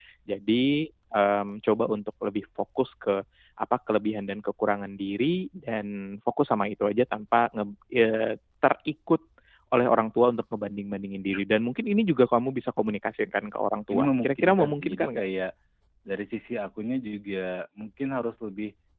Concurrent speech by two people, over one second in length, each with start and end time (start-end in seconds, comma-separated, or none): 13.9-15.3